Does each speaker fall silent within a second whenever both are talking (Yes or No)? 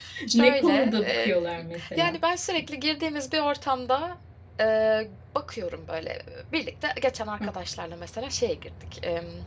No